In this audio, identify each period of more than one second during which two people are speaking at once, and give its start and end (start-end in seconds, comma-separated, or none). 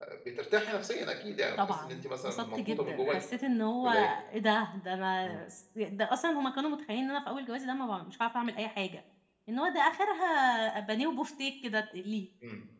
1.6-3.2